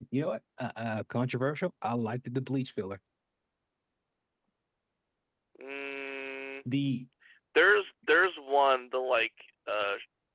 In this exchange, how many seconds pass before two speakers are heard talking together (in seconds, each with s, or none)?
none